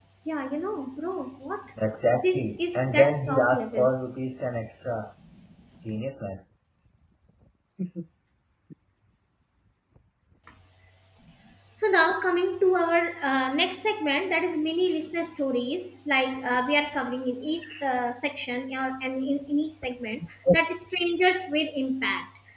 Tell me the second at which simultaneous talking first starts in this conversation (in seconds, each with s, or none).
2.1 s